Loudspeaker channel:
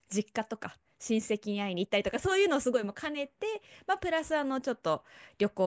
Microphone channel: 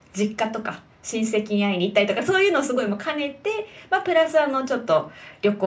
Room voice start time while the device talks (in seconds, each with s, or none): none